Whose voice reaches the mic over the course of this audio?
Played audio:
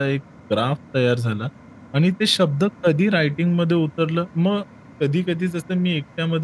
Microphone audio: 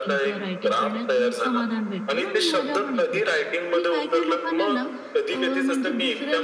both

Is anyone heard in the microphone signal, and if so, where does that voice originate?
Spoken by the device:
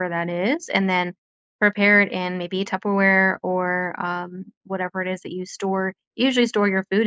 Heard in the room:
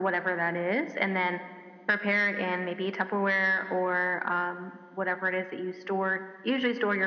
echo only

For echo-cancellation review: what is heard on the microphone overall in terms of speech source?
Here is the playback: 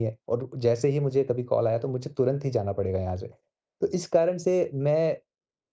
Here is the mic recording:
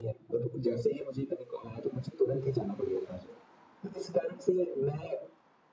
echo only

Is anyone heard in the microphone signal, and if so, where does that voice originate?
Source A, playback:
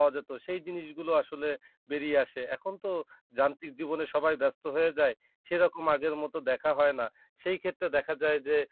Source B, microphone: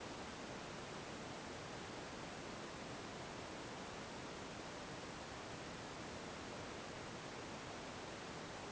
neither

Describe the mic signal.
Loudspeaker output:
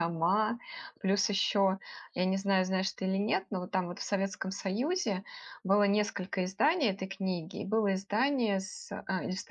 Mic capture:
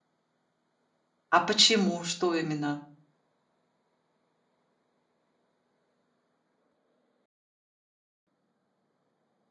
user only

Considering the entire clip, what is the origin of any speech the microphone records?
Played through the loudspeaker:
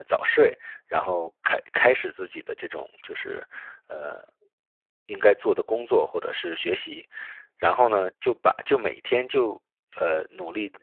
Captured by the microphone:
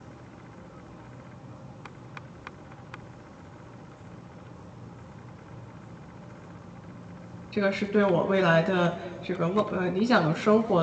user only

